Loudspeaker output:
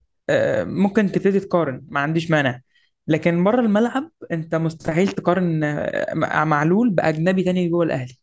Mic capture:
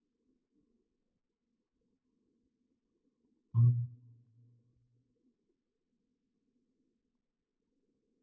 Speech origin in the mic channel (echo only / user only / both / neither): user only